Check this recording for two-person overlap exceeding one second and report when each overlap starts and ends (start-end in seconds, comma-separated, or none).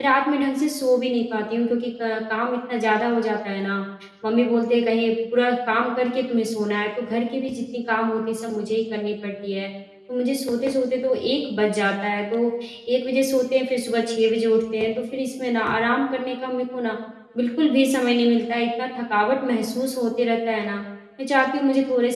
none